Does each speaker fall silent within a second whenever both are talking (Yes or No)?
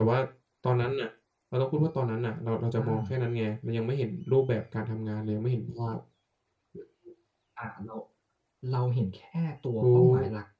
Yes